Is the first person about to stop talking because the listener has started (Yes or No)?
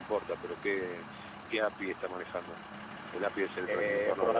Yes